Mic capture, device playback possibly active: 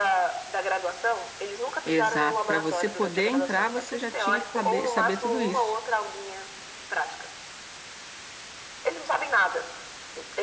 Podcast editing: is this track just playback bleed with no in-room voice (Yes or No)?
No